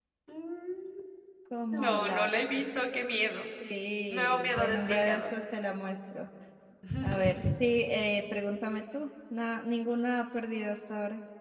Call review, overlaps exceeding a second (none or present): present